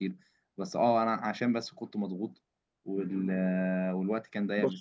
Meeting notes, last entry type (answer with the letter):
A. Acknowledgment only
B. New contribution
A